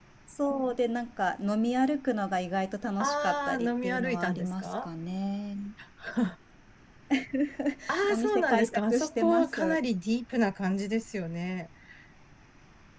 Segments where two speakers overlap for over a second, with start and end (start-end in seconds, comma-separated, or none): 3.0-4.9, 8.1-9.8